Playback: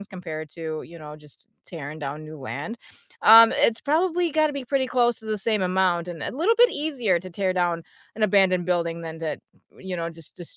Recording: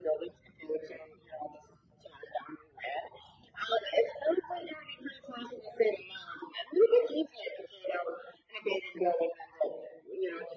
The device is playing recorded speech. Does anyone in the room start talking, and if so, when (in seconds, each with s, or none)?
none